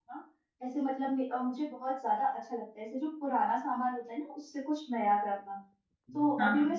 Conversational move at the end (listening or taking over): listening